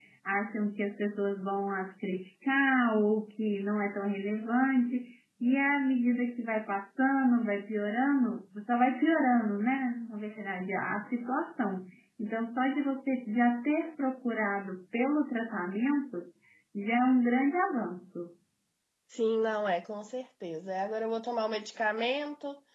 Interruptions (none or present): none